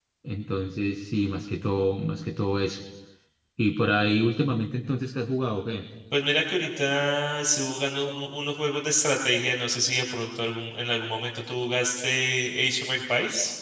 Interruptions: none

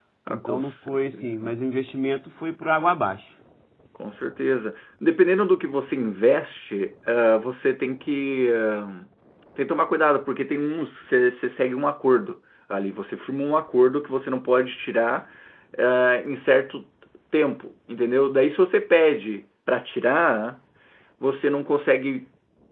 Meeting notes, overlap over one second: present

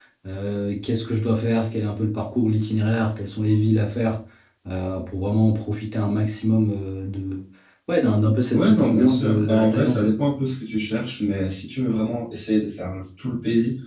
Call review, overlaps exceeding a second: present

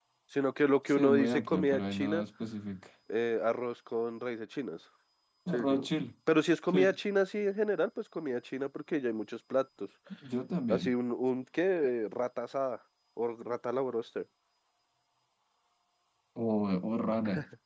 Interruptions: present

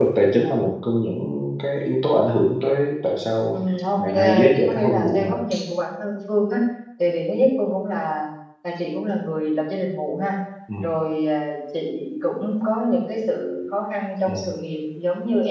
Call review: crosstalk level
present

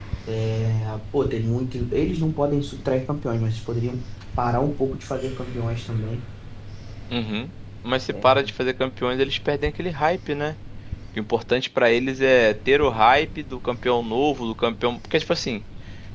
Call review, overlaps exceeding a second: none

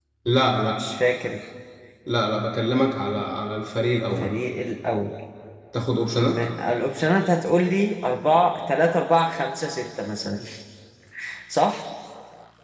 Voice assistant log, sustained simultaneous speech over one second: none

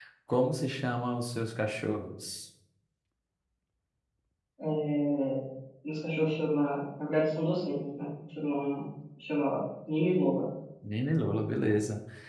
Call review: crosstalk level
none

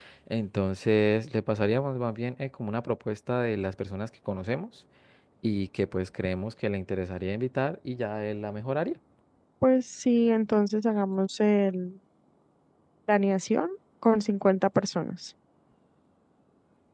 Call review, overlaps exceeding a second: none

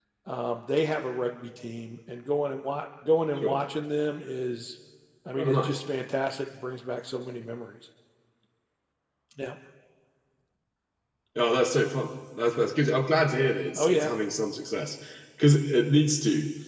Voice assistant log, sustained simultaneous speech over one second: none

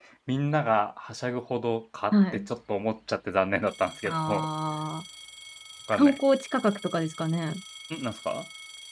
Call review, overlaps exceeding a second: none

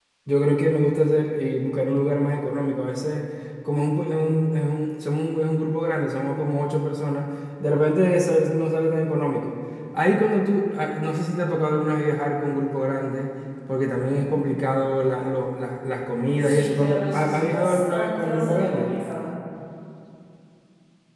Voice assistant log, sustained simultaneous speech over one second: present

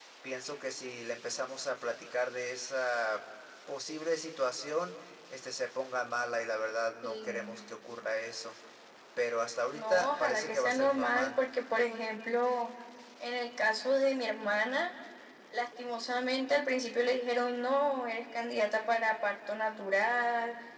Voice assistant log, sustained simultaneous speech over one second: present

